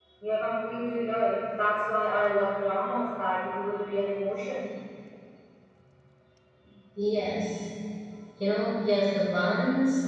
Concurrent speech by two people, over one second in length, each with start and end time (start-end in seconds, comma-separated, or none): none